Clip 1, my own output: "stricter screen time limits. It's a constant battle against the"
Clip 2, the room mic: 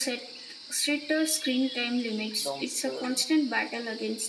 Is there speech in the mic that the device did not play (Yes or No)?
Yes